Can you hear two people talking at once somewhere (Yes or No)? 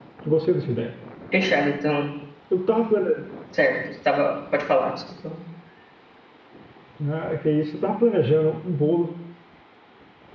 No